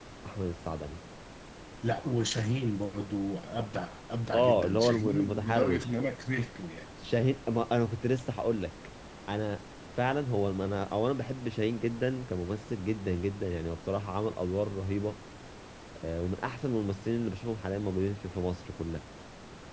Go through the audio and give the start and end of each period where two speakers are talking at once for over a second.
4.3-5.9

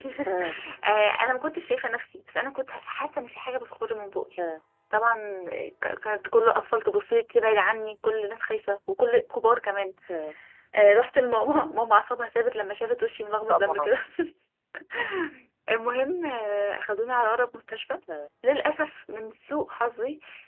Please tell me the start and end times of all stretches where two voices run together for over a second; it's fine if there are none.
none

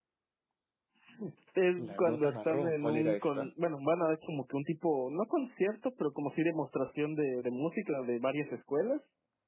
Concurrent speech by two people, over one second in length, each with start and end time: 1.8-3.5

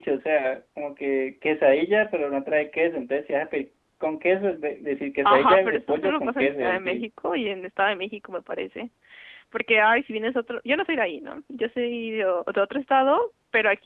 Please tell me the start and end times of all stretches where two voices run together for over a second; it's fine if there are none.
5.2-7.0

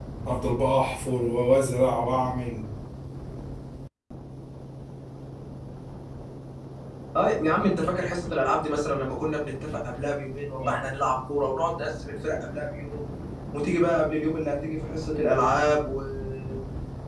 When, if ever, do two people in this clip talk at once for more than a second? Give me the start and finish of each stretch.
none

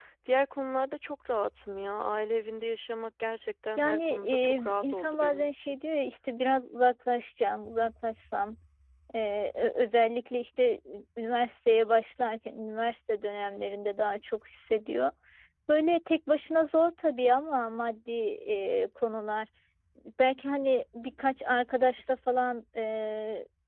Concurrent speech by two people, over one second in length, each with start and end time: 3.8-5.8

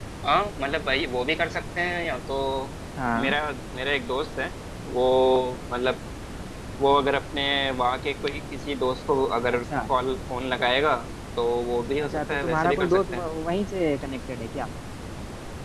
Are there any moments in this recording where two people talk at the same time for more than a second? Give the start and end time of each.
12.0-13.2

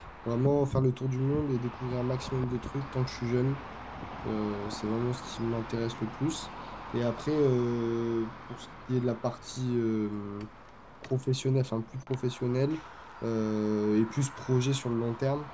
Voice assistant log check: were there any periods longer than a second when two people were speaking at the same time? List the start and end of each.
none

